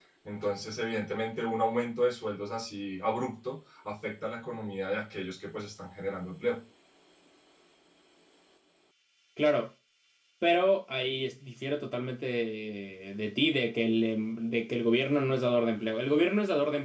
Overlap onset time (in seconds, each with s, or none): none